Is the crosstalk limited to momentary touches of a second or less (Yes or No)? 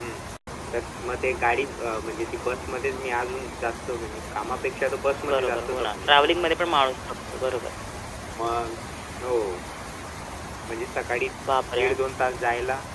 No